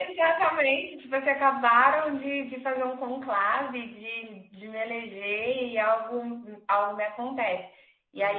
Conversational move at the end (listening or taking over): listening